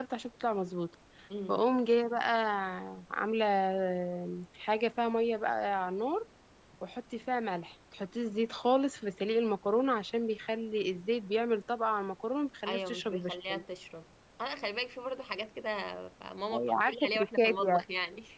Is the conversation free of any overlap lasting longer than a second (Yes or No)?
No